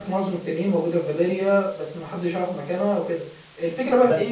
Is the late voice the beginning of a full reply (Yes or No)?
No